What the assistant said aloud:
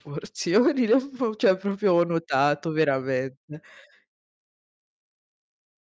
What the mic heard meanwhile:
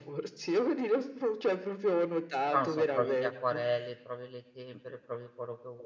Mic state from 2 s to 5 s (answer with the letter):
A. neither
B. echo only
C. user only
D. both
D